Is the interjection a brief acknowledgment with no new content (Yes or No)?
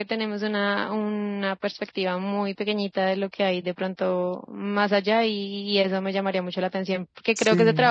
Yes